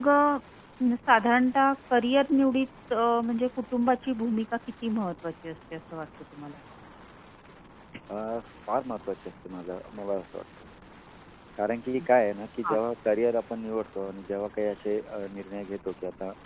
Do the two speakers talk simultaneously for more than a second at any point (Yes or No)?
No